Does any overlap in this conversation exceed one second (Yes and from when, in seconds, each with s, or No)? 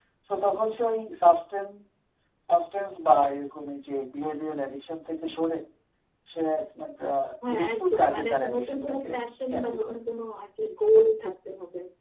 Yes, from 7.5 s